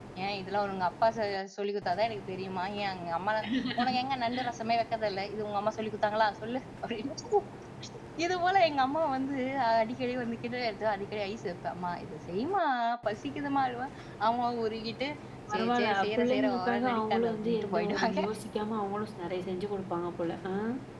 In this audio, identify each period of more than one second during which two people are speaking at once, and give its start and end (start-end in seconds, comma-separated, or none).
15.5-18.2